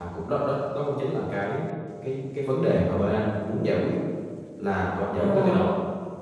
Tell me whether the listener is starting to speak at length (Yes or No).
No